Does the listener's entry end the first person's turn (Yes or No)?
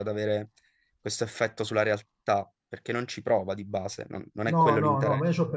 Yes